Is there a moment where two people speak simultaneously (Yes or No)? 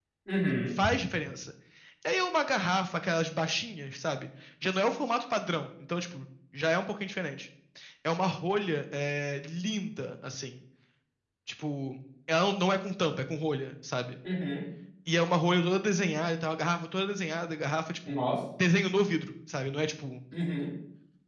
No